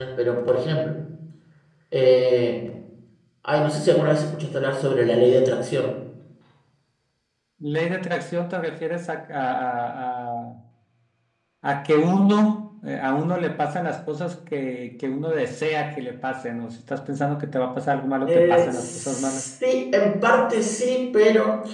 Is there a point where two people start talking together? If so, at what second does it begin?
18.2 s

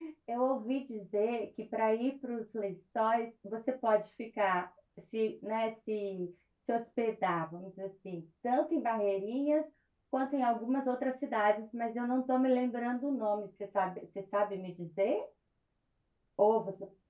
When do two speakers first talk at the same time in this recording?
none

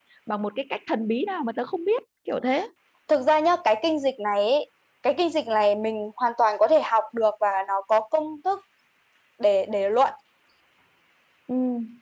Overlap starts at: none

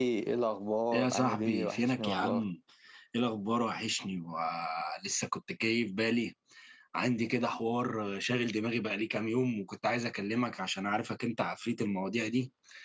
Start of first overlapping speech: 0.9 s

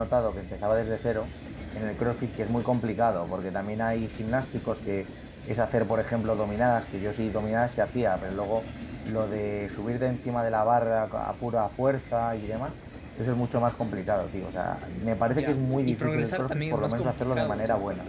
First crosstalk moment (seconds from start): 15.3 s

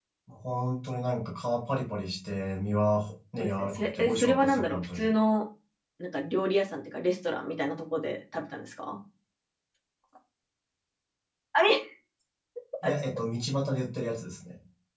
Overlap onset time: 3.4 s

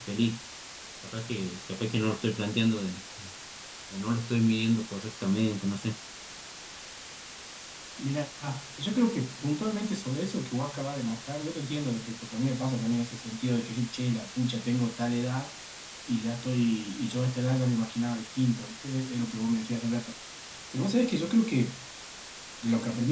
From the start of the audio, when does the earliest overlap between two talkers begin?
none

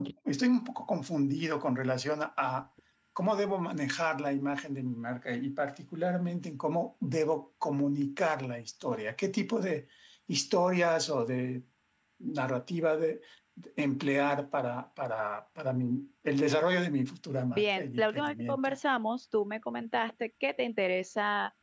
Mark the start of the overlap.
17.5 s

